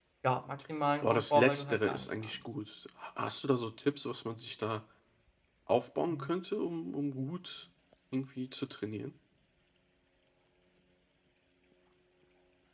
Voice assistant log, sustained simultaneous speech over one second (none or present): present